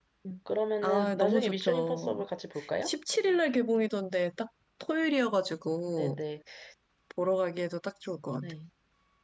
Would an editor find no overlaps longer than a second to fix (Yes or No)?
No